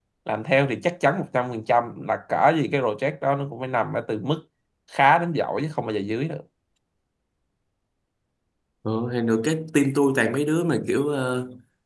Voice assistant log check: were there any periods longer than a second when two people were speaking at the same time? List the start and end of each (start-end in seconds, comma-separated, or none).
none